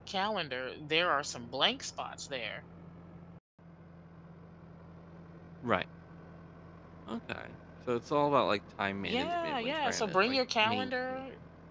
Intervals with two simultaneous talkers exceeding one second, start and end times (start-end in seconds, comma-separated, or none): 9.0-11.2